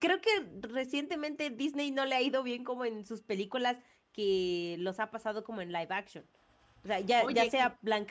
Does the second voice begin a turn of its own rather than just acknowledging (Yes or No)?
No